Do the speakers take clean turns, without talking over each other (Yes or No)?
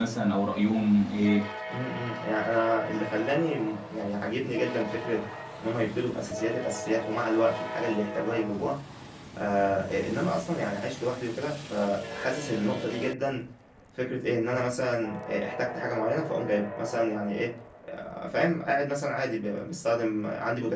Yes